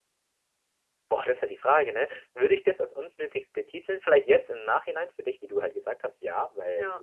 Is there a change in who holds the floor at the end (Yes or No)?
No